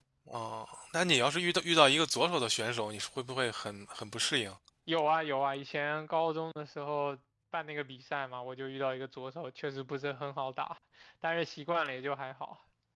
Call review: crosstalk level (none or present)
none